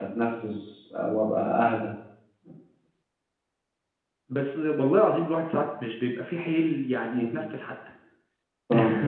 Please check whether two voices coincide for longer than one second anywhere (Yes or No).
No